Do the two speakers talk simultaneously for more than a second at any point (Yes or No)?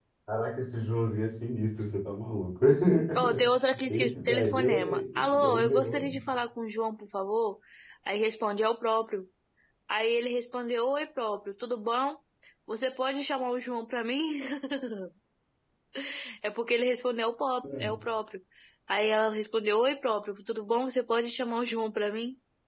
Yes